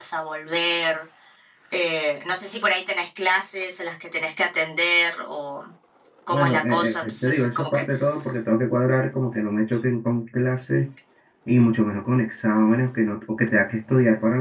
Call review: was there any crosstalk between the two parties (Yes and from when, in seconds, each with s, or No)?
Yes, from 6.3 s